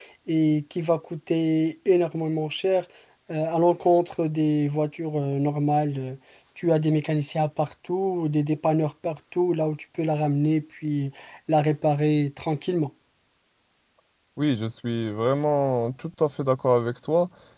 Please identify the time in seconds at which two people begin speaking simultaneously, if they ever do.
none

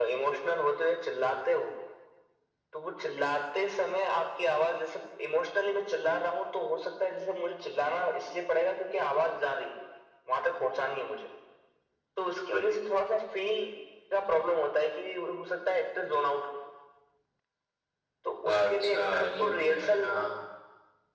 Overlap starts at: 18.4 s

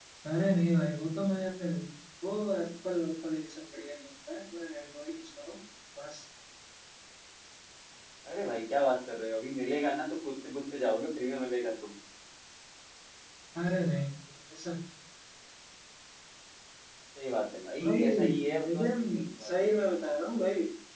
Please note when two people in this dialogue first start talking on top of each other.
17.8 s

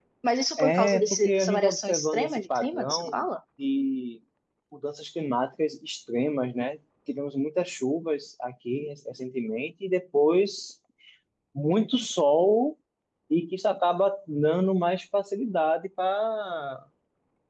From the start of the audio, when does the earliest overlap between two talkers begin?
0.6 s

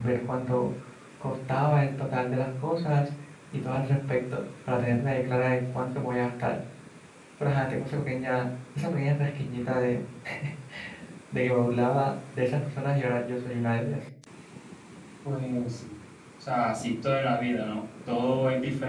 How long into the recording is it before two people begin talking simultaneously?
none

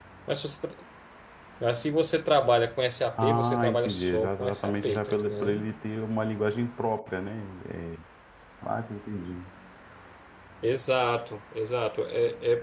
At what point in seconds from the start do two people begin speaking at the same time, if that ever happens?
3.2 s

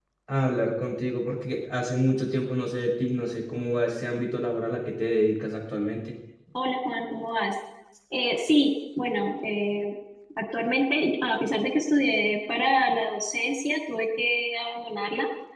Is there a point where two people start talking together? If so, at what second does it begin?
none

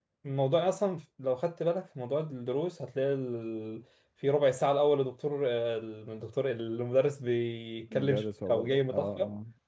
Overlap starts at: 7.9 s

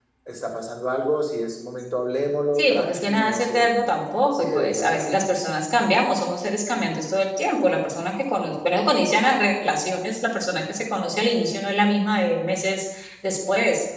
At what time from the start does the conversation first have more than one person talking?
2.6 s

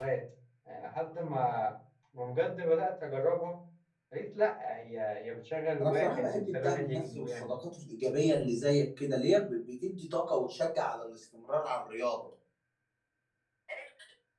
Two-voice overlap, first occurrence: 5.8 s

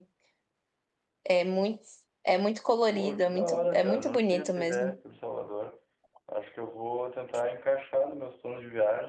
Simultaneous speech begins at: 2.9 s

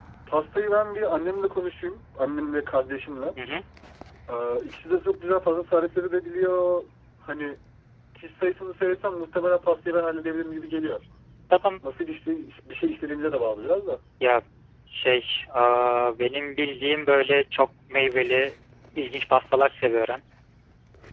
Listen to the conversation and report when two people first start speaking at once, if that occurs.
none

